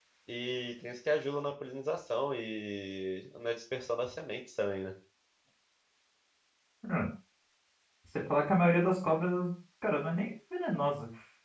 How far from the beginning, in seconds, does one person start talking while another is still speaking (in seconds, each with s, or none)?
none